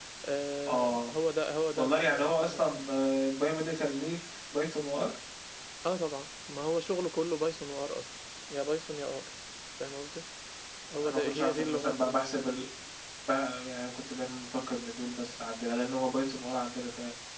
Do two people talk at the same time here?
Yes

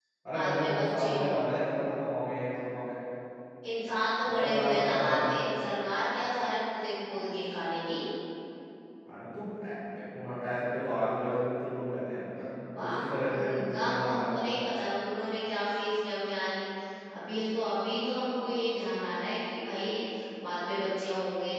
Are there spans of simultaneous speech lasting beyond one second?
Yes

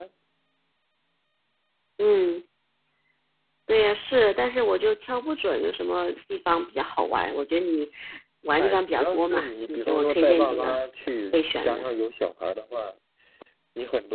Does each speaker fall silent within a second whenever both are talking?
No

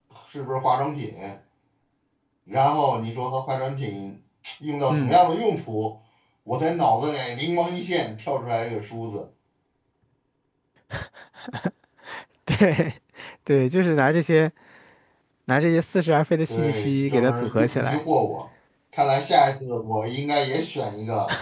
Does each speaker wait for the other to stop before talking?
No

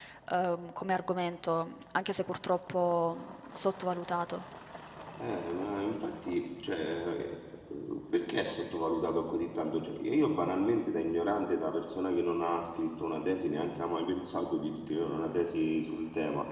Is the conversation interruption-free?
Yes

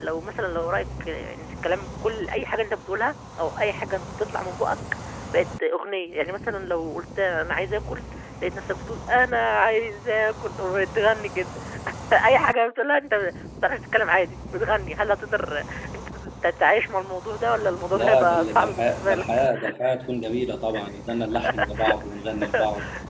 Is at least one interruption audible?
Yes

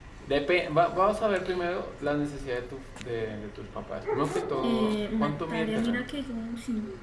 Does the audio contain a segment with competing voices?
Yes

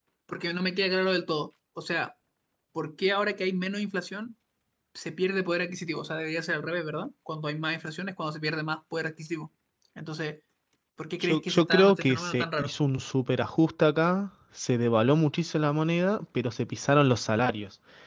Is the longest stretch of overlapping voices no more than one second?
No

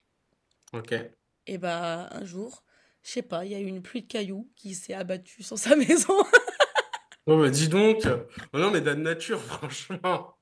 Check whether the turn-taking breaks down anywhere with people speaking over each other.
No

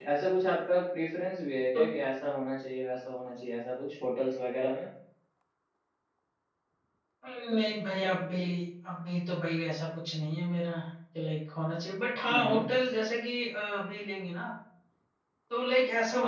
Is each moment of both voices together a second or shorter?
Yes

